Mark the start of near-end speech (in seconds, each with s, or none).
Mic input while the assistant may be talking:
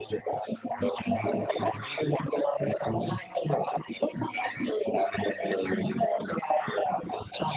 none